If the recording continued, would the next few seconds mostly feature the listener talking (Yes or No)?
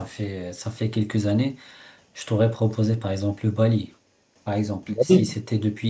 No